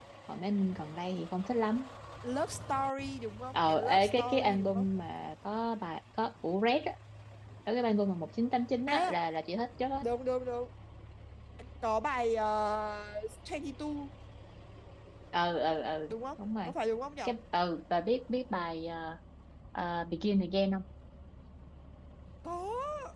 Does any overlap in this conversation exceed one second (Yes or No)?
Yes